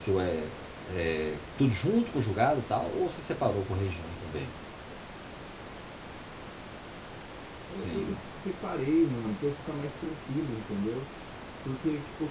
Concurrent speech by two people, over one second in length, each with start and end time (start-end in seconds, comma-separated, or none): none